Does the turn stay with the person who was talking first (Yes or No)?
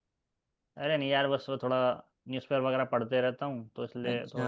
Yes